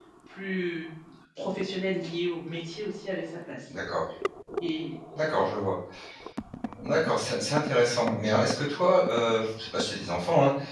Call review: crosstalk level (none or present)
none